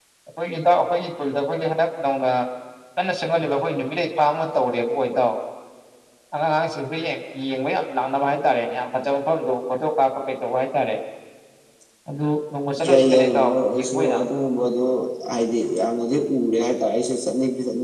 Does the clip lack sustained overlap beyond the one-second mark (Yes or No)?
No